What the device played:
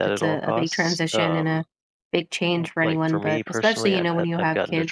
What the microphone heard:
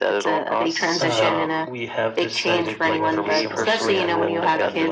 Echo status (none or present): present